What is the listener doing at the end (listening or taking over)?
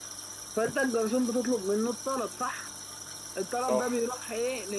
listening